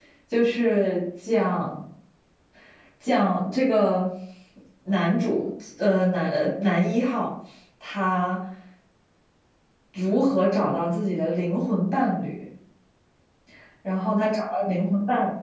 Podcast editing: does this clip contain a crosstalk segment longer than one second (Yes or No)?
No